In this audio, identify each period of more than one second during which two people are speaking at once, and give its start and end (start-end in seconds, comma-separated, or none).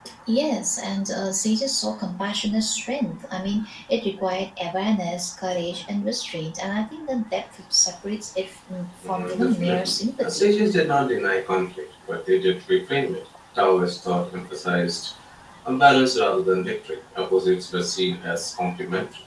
9.0-10.5